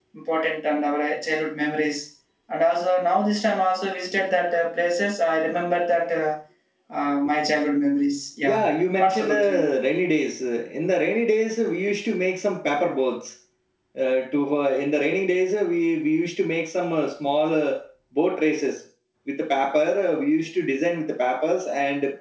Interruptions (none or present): present